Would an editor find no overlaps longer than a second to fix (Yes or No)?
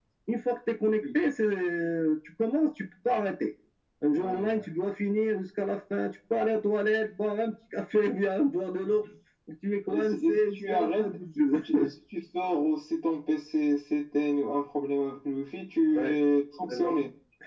No